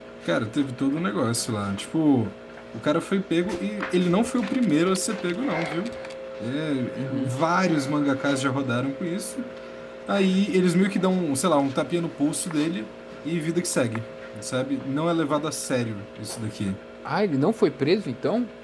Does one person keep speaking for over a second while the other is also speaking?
No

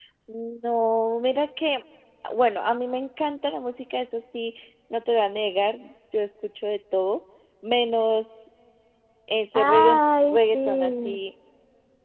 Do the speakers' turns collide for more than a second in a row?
Yes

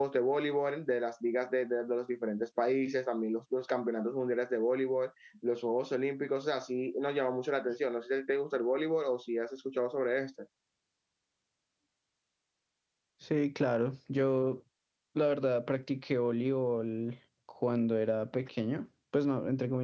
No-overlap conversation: Yes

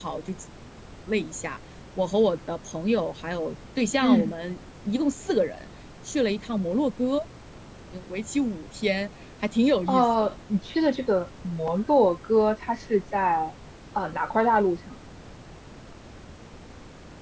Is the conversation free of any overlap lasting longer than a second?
Yes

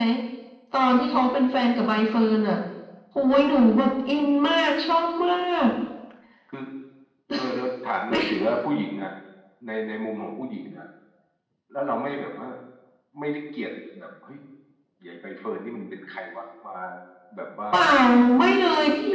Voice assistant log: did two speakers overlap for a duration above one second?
No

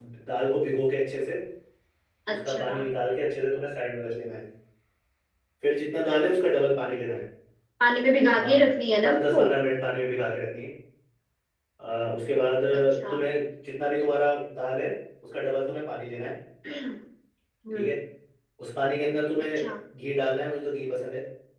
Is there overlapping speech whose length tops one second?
No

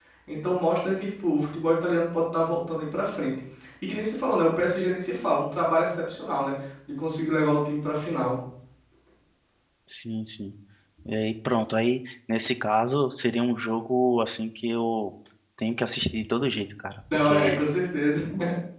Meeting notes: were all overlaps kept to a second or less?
Yes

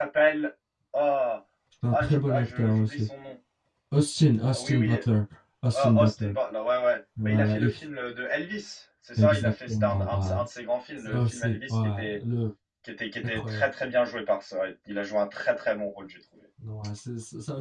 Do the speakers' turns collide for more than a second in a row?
Yes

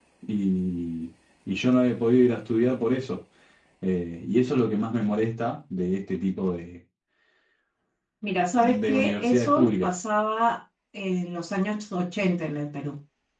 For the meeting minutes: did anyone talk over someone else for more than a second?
Yes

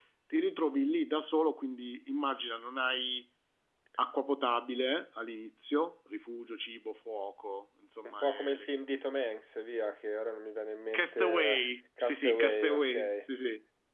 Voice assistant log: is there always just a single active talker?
No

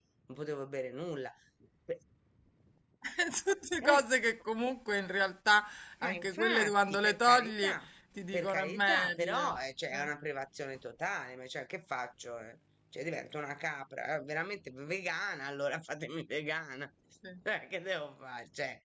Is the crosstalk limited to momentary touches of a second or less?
No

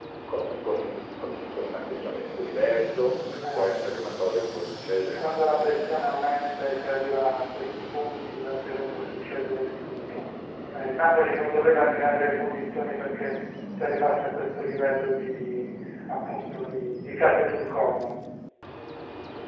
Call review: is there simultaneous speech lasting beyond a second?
No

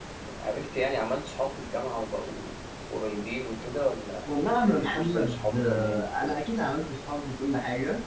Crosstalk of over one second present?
Yes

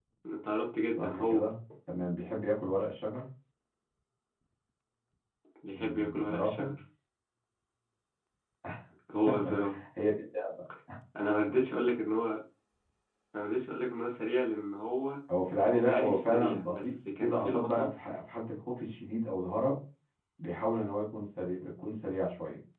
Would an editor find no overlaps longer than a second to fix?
No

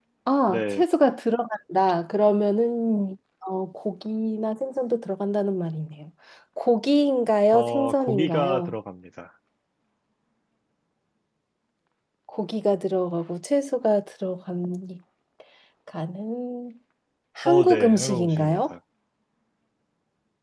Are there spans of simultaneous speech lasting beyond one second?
Yes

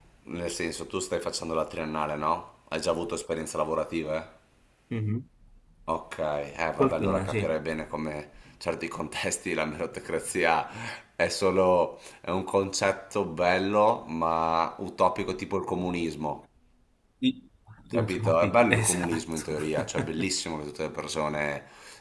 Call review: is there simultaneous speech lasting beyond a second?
Yes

